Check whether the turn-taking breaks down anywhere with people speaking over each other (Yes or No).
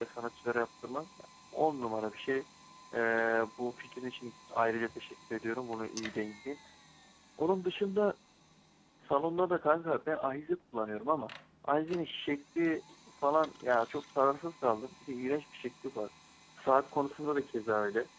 No